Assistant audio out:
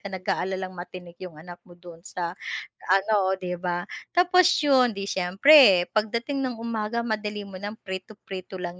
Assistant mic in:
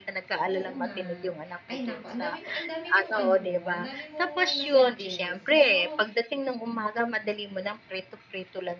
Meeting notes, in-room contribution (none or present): present